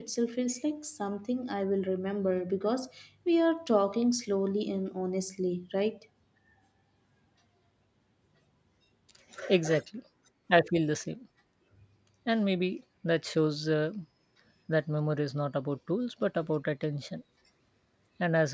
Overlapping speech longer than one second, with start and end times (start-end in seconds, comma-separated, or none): none